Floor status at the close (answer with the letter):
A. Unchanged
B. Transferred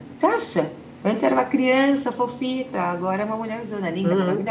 B